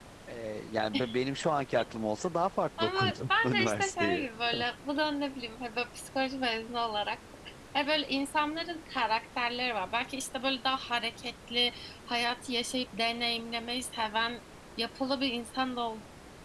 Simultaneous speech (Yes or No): Yes